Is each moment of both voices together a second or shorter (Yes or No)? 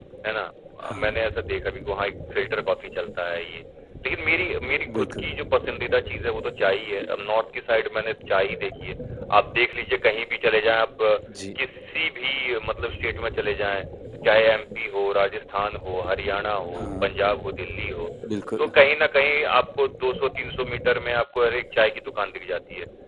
Yes